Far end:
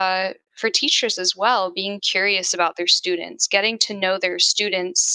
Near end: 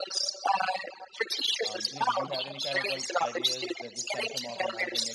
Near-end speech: present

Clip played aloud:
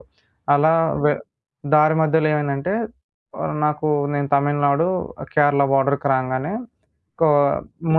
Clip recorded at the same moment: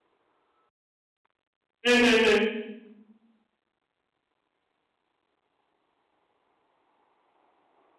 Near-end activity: present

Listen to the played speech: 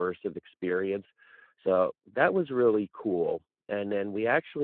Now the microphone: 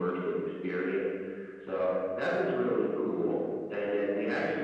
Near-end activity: none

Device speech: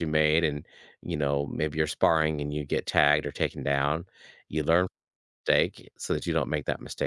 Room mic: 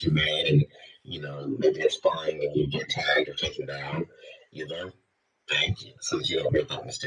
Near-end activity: none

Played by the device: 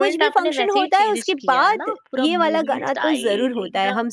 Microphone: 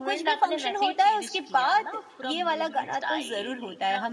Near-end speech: none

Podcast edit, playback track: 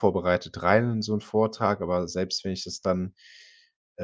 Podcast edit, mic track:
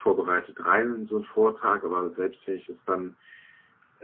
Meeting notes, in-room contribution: none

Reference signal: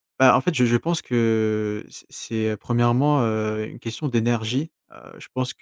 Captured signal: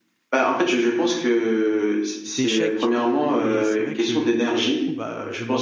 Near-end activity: present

